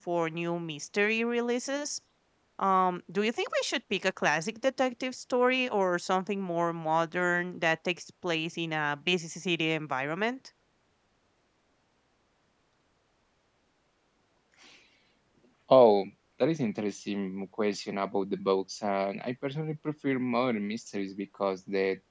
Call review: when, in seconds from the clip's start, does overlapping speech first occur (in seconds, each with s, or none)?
none